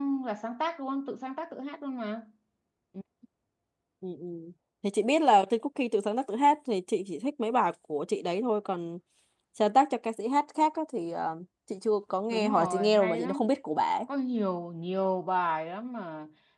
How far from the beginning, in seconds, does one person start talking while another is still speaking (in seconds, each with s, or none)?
12.3 s